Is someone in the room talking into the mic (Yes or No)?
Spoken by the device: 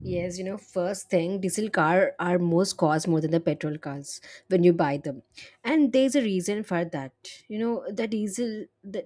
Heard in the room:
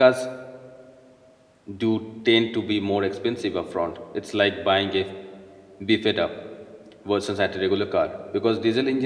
Yes